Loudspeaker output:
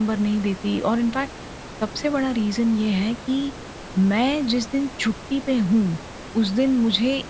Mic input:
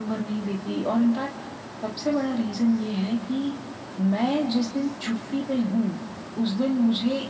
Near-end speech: none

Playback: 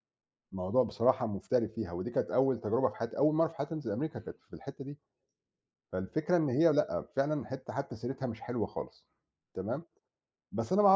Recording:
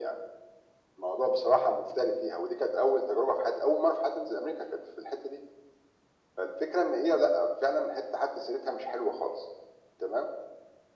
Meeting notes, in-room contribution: none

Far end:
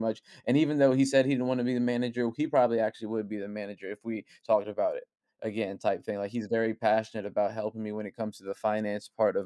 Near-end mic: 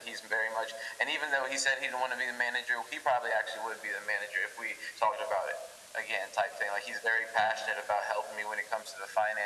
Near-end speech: none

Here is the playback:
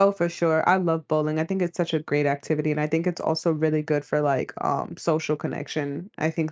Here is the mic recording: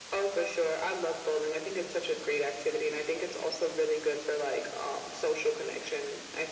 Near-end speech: none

